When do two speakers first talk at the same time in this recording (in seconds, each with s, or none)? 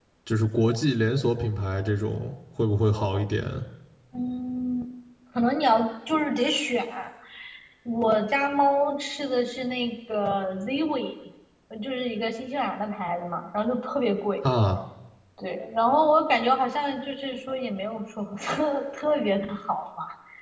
none